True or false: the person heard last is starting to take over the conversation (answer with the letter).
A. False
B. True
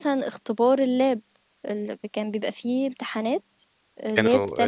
B